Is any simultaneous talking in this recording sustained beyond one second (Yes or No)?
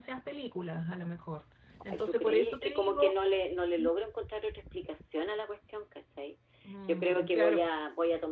Yes